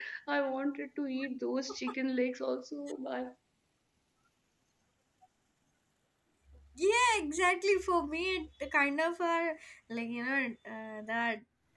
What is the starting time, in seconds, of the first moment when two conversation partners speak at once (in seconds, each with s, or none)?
none